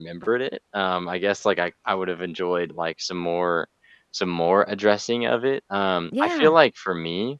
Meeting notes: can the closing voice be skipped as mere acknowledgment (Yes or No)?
Yes